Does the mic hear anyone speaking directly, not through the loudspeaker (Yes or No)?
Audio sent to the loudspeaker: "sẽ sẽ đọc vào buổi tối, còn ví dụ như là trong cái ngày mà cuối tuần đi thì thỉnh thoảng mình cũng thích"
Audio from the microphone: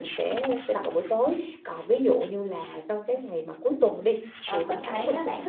Yes